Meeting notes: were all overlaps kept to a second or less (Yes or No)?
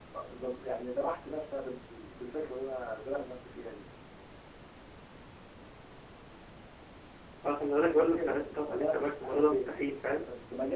No